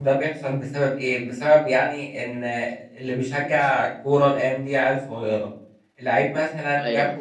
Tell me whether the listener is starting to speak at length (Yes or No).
No